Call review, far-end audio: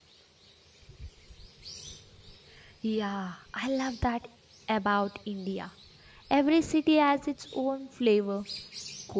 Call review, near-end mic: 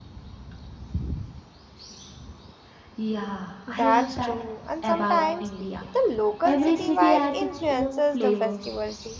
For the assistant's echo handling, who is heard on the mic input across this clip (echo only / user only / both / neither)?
both